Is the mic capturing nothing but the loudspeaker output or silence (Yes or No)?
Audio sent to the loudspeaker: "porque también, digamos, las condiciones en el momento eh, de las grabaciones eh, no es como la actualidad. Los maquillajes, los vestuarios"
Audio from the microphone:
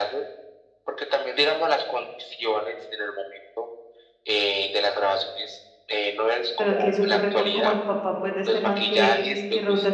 No